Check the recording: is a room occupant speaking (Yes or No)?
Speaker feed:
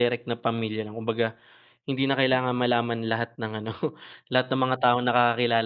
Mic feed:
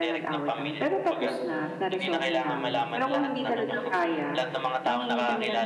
Yes